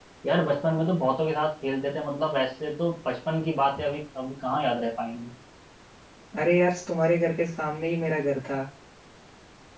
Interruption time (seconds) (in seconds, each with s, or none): none